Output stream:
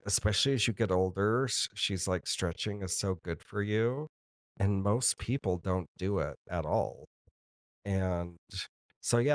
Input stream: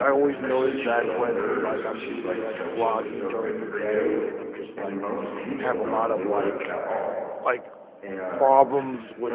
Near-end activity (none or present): present